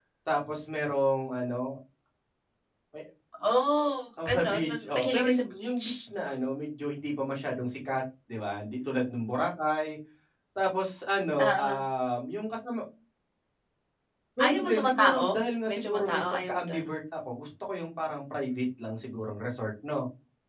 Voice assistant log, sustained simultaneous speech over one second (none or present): present